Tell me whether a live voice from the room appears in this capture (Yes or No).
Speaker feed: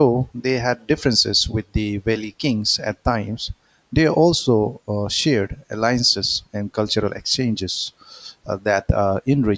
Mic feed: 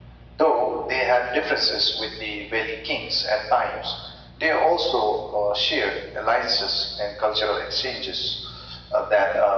No